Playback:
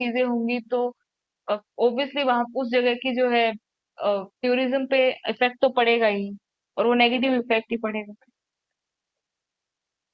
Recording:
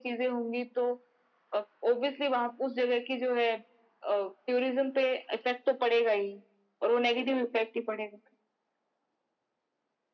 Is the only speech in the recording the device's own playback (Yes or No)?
Yes